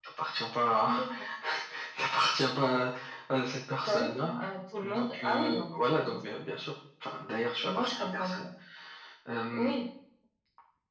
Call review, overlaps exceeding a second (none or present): present